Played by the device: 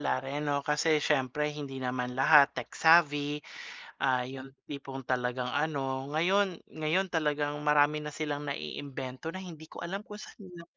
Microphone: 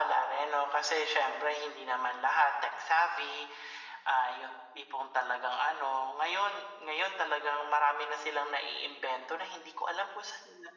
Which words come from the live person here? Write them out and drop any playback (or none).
none